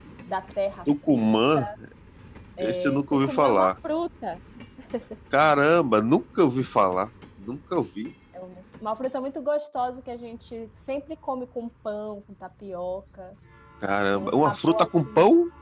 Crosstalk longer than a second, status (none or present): present